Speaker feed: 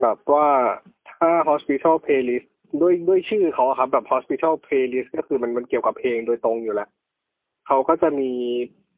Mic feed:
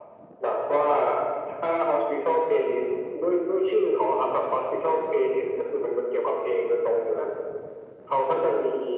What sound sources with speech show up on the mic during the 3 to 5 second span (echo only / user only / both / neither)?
echo only